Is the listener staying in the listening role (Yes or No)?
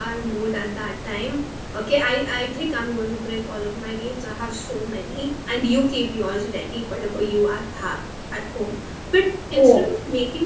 Yes